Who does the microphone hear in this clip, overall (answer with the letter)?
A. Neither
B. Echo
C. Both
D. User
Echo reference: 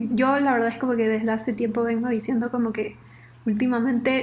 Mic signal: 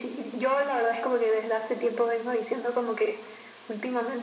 B